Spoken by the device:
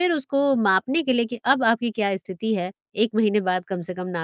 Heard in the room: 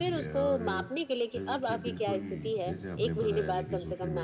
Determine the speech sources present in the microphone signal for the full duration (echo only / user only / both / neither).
both